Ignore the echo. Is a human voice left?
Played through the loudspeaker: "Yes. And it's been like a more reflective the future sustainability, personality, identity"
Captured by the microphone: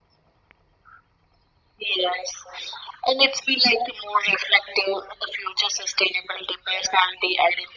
No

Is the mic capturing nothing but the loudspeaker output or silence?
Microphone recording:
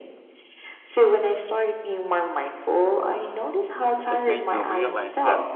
No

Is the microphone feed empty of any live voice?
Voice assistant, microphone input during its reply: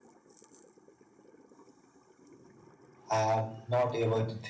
No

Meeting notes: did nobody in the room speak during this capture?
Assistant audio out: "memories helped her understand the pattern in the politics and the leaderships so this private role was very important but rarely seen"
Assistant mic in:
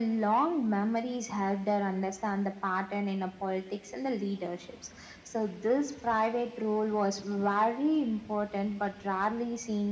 Yes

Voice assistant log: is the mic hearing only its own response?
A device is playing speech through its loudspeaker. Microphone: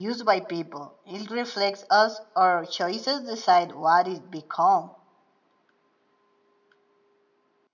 No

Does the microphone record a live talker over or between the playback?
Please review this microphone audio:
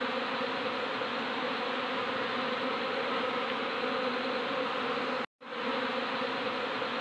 No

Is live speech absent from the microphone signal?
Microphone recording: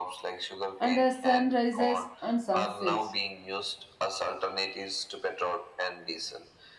No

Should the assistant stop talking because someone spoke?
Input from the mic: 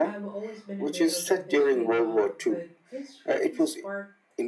Yes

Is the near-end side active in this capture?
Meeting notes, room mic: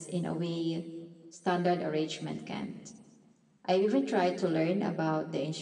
No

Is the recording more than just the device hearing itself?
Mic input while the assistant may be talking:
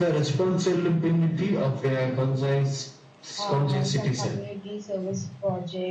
Yes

